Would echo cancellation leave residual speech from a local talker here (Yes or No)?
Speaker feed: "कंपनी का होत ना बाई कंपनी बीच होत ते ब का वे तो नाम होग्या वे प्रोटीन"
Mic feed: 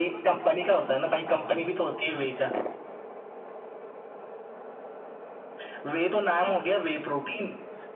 No